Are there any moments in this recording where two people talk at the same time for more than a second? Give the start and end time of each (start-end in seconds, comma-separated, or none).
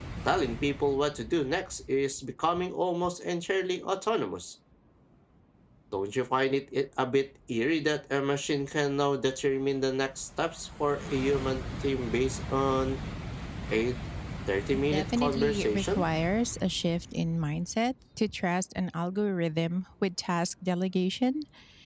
14.7-16.0